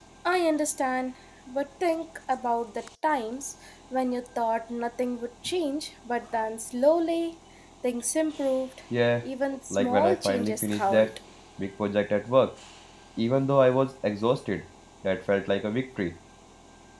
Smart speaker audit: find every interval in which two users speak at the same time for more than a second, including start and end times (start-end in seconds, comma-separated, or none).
9.7-11.1